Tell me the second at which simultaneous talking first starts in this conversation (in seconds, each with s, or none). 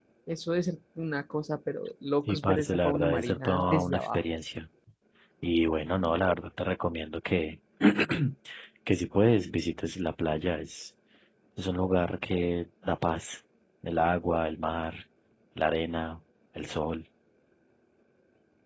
2.3 s